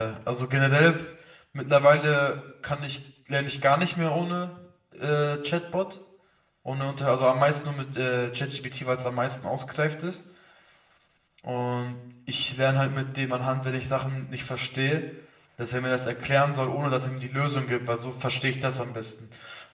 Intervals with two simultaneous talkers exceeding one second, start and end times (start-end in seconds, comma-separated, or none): none